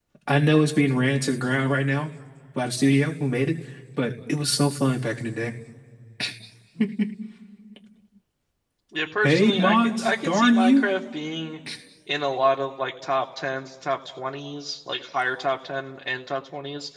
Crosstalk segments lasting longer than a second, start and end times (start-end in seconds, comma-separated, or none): 9.2-10.9